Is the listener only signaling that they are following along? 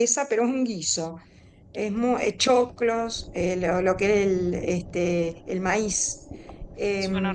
Yes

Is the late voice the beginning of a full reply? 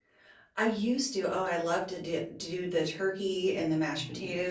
No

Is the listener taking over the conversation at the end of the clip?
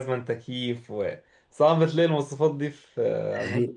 Yes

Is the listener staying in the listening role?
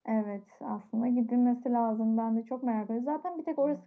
Yes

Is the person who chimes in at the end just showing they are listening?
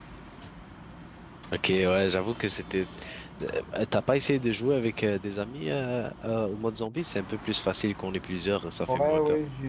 No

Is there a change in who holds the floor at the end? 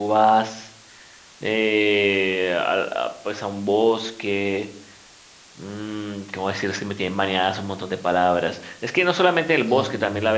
No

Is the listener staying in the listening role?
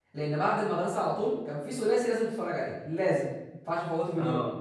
Yes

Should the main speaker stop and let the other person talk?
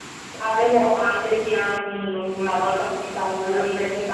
No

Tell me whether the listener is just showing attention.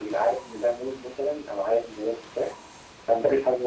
Yes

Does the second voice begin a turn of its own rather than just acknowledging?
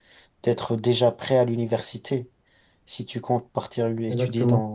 No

